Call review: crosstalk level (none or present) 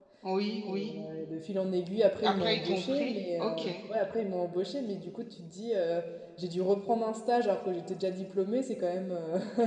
present